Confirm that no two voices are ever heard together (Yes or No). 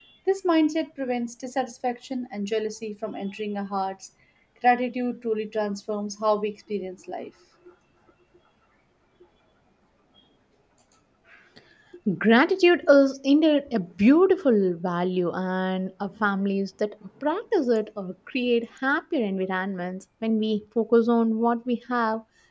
Yes